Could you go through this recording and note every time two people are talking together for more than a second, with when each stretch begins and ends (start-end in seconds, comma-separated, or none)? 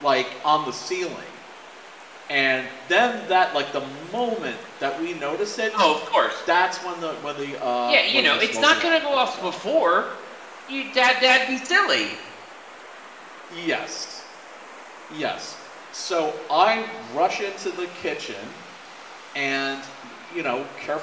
7.9-9.6